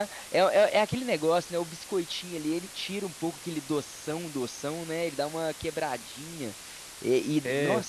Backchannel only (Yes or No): Yes